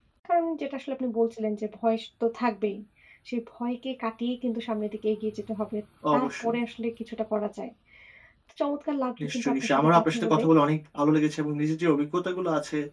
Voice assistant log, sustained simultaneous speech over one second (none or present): present